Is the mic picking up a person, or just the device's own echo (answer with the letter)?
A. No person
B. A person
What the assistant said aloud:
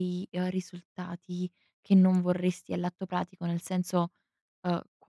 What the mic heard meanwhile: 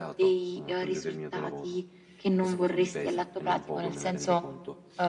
B